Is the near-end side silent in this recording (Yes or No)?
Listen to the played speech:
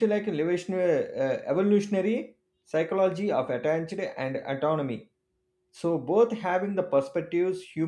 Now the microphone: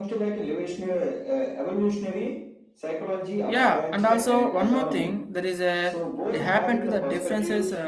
No